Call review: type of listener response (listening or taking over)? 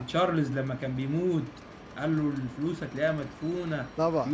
taking over